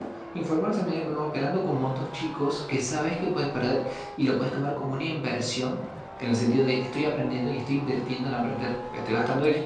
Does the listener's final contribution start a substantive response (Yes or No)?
No